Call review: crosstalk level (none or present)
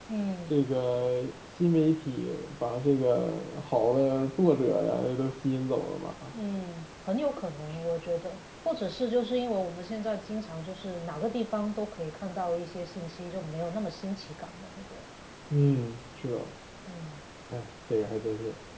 none